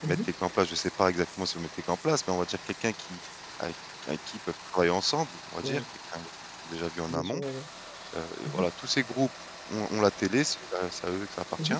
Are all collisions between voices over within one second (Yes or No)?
Yes